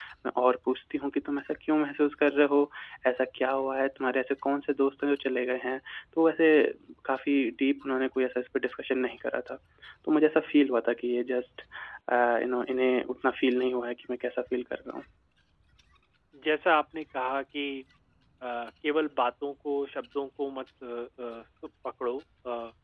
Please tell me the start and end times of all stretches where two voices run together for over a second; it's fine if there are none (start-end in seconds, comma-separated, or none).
none